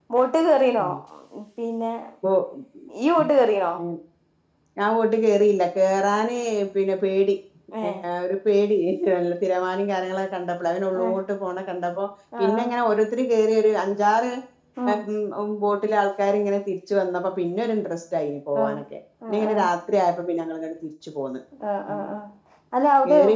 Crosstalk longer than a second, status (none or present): none